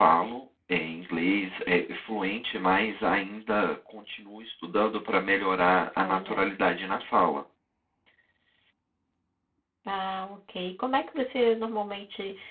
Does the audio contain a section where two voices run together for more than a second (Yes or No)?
No